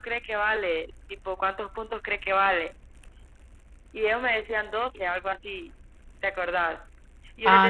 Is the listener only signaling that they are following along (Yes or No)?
Yes